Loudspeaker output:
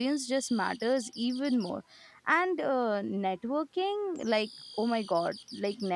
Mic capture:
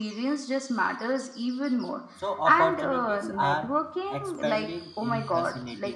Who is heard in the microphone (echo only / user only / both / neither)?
both